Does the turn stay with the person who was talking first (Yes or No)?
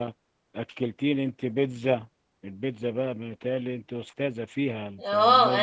No